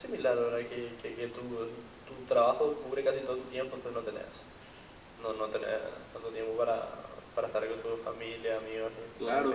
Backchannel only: No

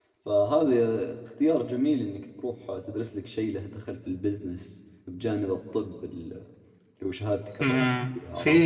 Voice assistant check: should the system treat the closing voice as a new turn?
Yes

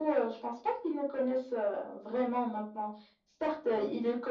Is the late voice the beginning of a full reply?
No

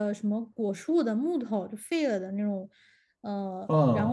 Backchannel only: Yes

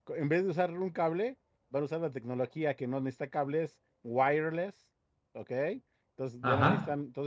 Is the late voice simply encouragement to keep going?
Yes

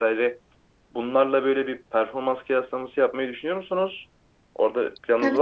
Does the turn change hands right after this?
Yes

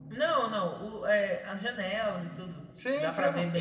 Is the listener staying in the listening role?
No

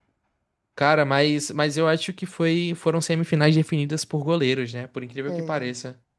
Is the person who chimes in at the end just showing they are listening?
No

